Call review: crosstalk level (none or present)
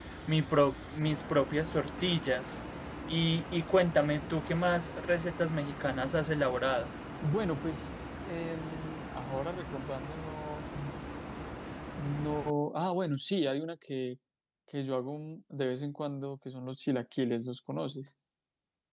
none